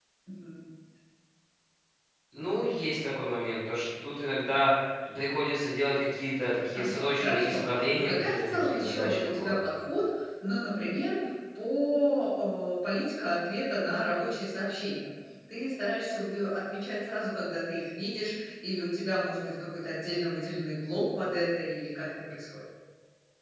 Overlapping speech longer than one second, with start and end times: 6.8-9.6

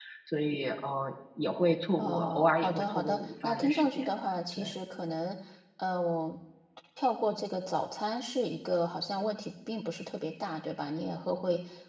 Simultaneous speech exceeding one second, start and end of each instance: 2.0-4.1

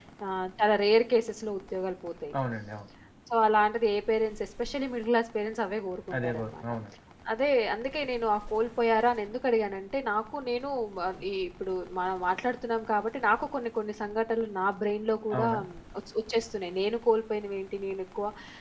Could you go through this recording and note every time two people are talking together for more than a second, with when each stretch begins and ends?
none

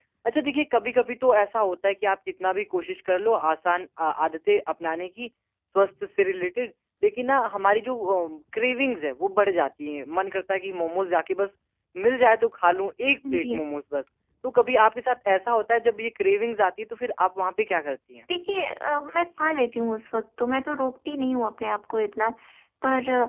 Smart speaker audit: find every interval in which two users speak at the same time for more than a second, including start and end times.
none

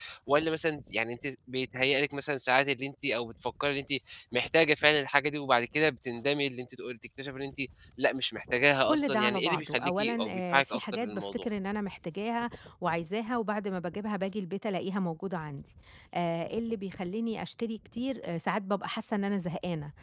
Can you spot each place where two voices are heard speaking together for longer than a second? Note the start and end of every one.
8.9-11.5

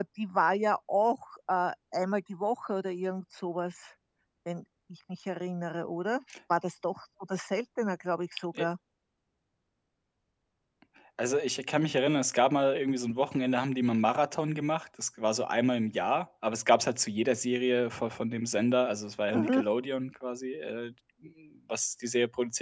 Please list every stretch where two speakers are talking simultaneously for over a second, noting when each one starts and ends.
none

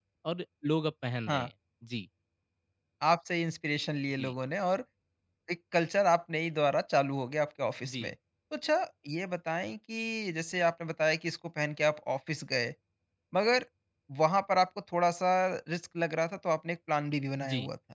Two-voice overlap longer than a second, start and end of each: none

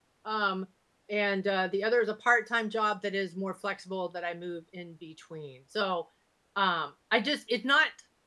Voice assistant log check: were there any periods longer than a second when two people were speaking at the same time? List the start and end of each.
none

